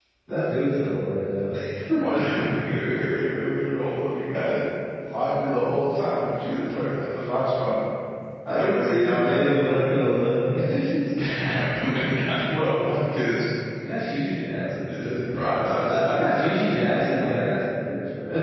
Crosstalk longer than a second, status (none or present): present